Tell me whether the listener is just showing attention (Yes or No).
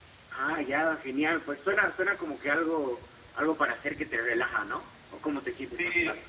No